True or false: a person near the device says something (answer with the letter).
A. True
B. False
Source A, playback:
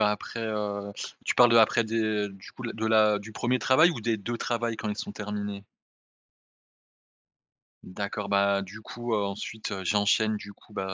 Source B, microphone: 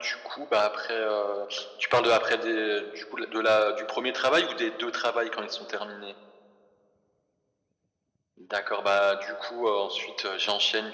B